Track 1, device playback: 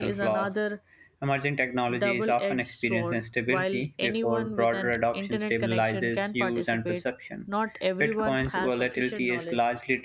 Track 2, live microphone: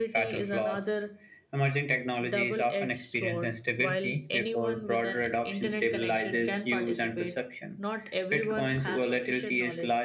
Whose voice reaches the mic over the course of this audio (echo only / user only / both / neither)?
echo only